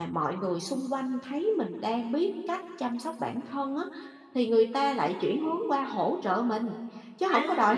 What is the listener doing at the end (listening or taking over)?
taking over